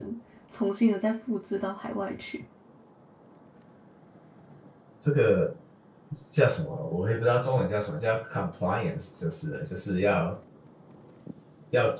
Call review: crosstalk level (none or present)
none